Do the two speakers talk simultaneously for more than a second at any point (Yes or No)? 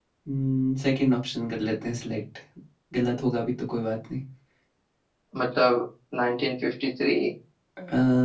No